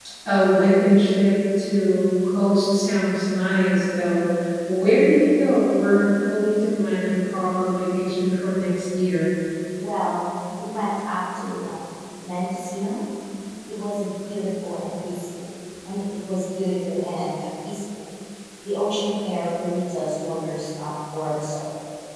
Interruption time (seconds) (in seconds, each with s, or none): none